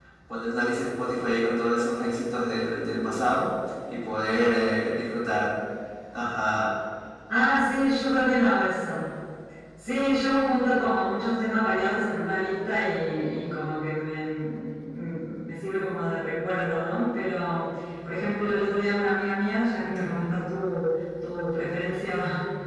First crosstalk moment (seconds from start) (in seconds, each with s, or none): none